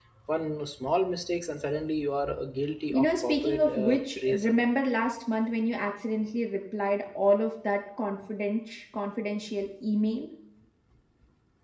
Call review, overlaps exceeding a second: present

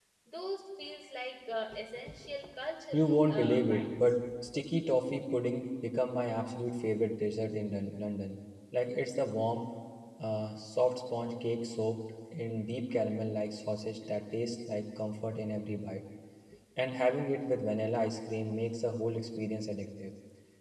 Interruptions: present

